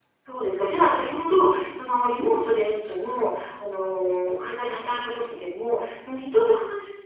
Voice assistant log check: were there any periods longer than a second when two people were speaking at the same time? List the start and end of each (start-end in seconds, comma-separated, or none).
none